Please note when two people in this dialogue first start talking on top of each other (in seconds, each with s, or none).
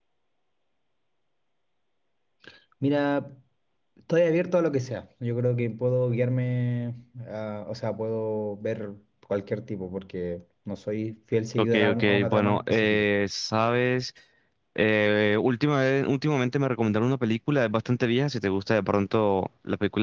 11.6 s